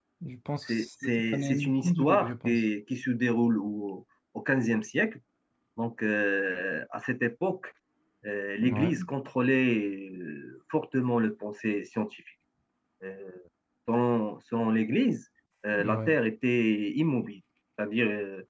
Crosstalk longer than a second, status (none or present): present